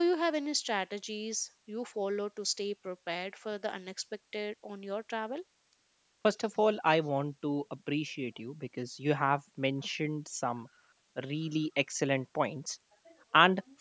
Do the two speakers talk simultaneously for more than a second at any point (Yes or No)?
No